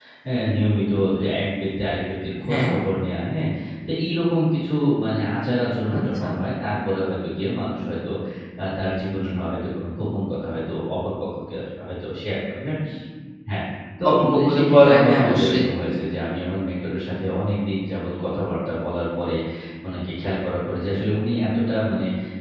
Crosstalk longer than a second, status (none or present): present